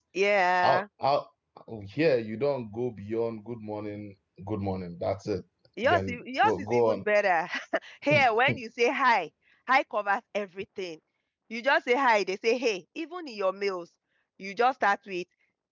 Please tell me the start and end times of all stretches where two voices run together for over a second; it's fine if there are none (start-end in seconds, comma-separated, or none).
5.8-7.0